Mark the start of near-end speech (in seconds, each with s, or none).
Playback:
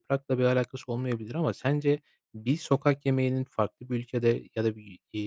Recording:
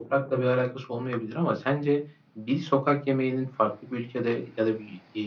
none